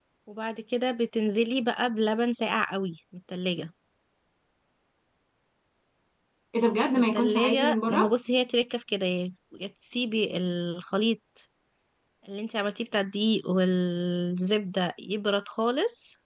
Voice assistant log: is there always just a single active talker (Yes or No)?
No